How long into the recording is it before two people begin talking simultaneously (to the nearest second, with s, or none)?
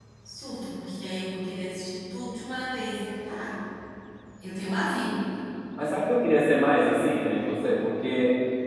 none